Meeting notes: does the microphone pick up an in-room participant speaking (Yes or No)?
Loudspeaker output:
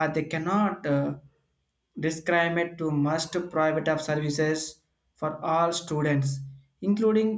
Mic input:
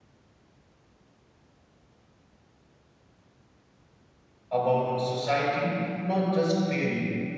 Yes